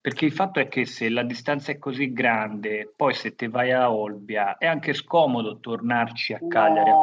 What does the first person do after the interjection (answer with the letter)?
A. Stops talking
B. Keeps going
A